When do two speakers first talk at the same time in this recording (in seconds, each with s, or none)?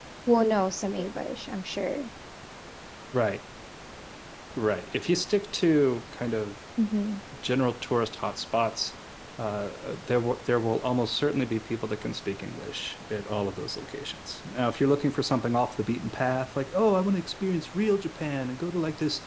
none